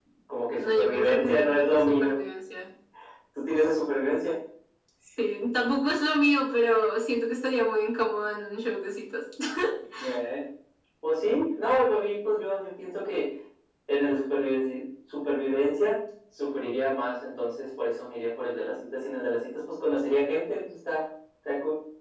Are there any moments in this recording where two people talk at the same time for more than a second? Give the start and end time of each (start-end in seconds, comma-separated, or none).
0.6-2.2